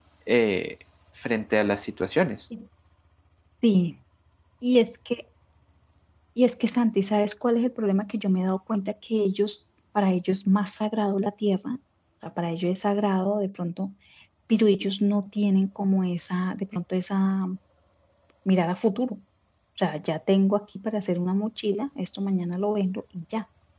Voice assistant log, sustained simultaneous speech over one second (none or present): none